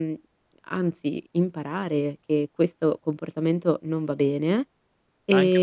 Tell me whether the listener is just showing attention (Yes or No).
No